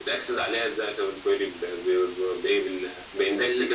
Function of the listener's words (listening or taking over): listening